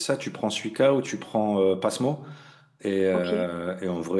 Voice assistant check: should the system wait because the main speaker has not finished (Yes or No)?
Yes